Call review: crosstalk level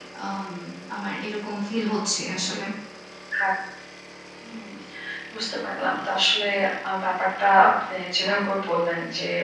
none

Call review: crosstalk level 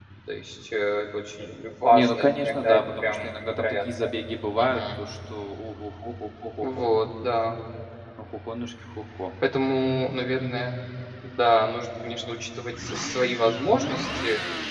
present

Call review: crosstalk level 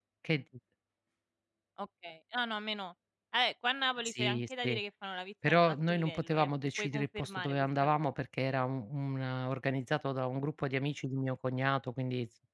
present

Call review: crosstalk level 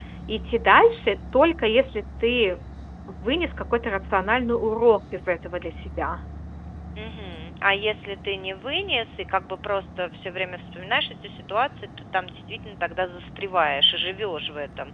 none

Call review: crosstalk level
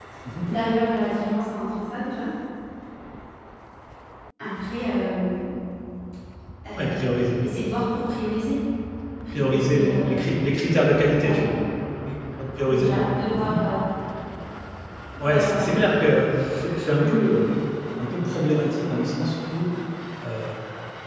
present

